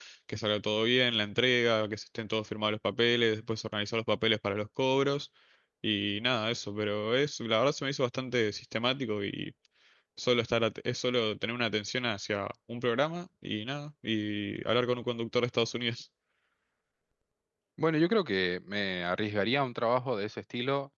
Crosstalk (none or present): none